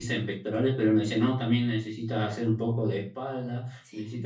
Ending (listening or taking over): listening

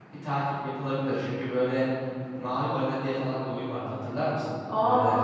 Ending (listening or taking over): taking over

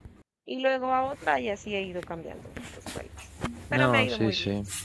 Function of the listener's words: taking over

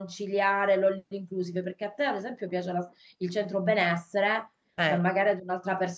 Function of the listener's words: listening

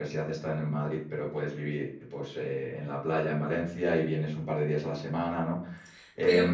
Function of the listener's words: taking over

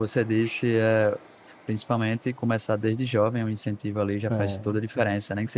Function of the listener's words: listening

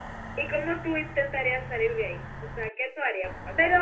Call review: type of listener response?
taking over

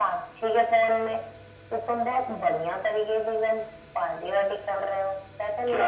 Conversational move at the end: taking over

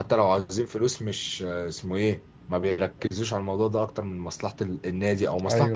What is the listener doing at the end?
listening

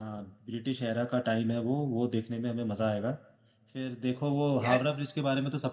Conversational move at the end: listening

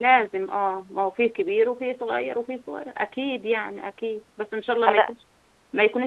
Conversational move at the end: listening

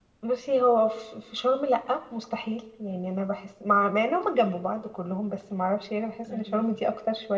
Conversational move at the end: listening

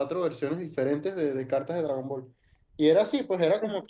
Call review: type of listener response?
listening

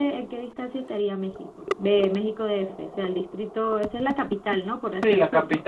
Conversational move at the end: taking over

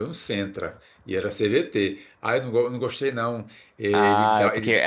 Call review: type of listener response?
taking over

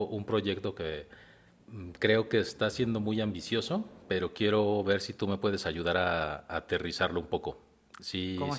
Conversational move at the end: taking over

